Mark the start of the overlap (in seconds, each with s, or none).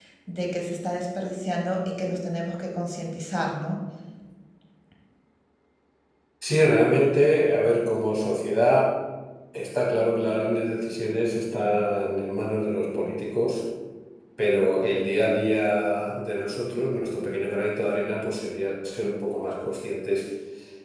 none